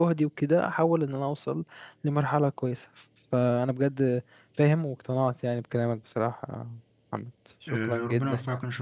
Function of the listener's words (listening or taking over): taking over